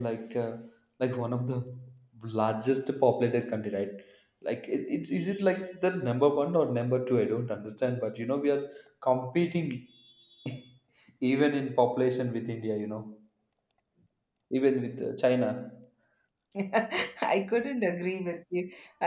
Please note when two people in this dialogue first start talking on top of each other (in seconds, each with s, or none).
none